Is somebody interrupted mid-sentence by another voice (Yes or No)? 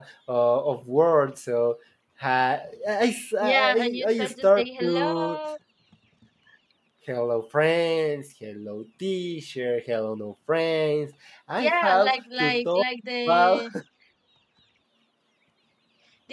Yes